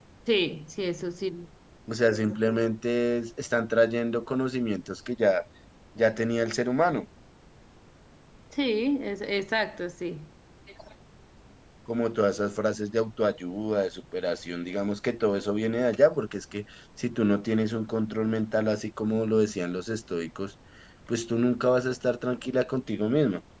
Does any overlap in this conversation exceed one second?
No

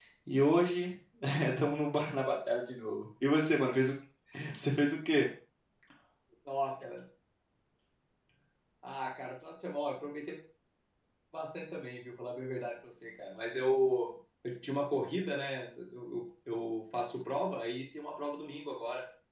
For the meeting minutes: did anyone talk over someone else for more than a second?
No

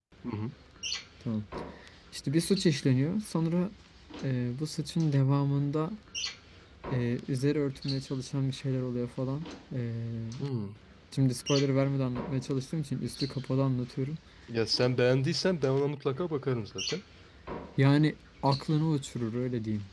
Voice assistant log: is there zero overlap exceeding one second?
Yes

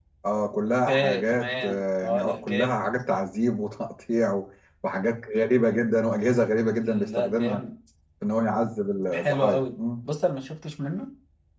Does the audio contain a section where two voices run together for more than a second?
Yes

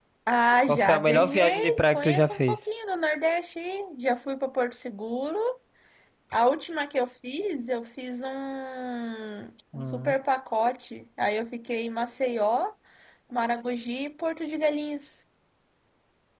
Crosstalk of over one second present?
Yes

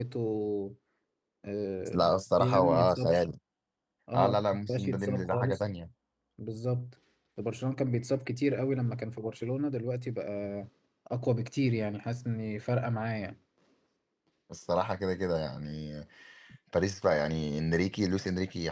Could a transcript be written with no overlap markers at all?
No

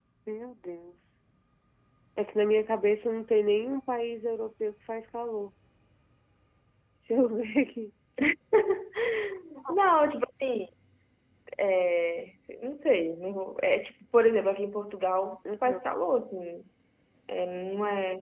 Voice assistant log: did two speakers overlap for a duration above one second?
No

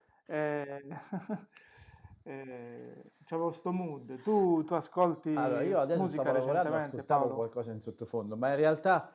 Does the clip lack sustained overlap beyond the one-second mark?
No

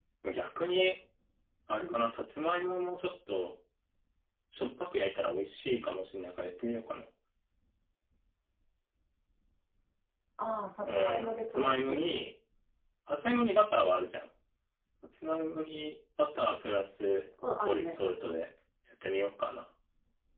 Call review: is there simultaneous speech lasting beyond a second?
Yes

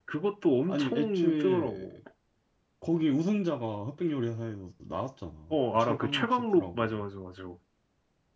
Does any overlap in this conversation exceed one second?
Yes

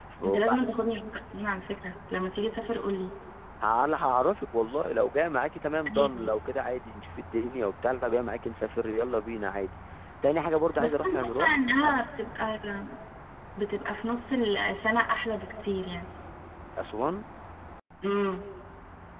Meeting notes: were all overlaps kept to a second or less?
No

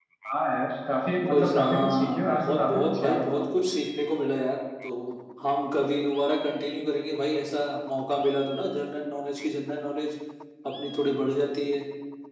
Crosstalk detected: Yes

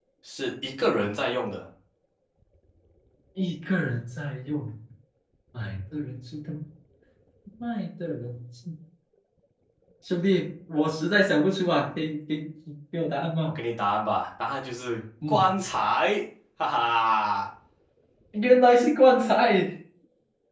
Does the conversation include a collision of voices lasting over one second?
No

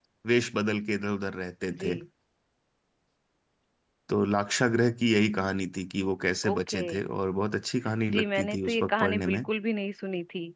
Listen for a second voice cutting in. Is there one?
Yes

